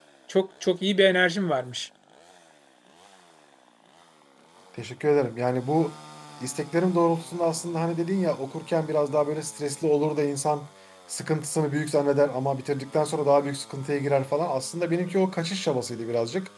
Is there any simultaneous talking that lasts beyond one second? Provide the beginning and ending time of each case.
none

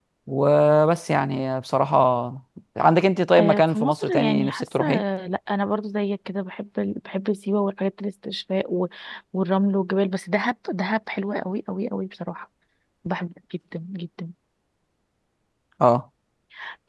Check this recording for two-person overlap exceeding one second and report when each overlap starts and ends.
3.4-4.8

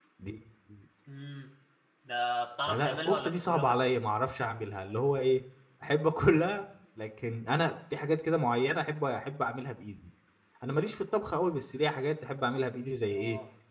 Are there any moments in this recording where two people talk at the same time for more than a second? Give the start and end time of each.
2.7-4.0

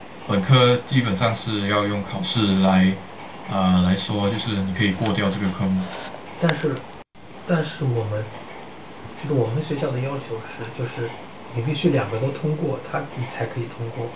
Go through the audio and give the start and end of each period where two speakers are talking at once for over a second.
none

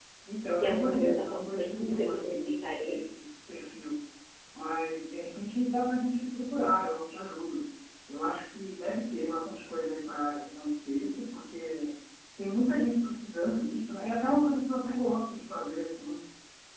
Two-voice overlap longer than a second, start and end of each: 0.6-3.0

